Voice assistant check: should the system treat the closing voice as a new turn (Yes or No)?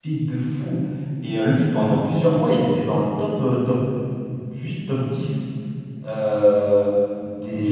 No